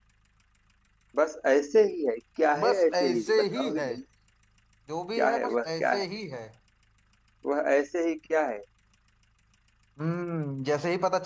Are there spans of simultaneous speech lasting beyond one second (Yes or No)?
Yes